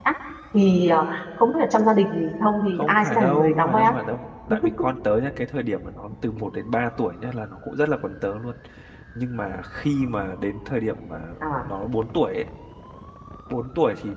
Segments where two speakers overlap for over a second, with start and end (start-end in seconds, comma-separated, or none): 2.7-3.9